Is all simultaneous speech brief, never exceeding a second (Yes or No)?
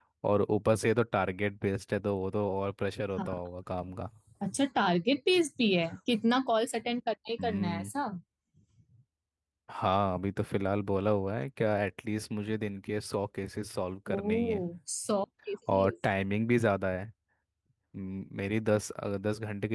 Yes